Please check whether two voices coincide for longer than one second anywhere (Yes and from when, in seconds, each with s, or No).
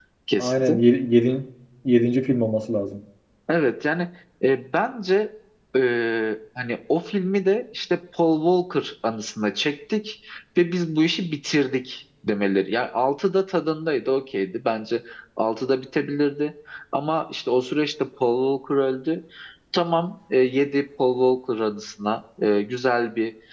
No